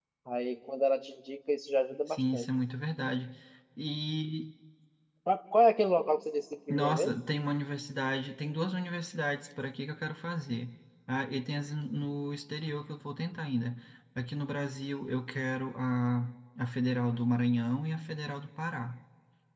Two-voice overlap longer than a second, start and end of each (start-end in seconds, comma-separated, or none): none